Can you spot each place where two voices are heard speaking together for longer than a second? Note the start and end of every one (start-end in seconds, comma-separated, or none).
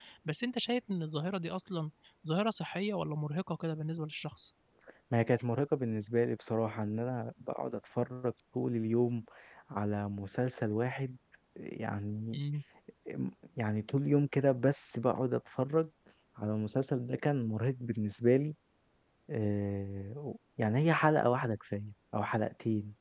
none